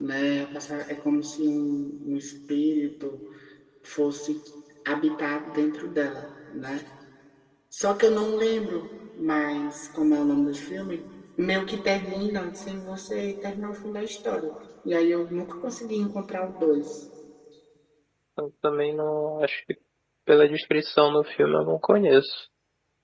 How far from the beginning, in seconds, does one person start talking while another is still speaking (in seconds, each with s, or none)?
none